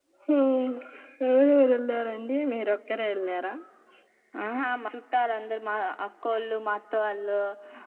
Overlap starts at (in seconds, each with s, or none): none